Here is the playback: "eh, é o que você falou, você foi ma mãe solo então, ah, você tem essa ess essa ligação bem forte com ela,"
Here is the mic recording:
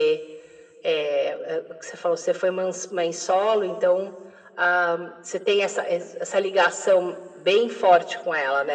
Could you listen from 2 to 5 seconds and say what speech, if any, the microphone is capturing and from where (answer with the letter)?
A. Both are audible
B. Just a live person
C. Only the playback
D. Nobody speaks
C